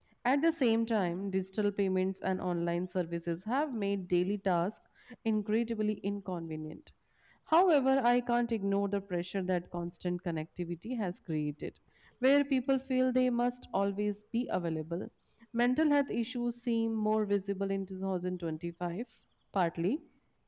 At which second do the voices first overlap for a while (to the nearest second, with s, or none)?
none